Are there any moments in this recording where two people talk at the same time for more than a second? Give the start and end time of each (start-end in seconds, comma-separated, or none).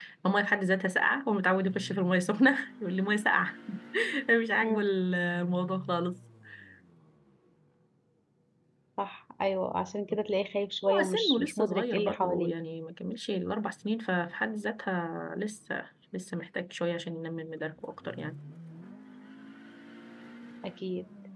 10.9-12.5